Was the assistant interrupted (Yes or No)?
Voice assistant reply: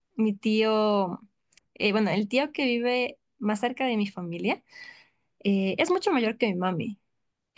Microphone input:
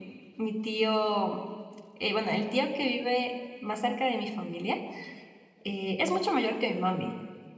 No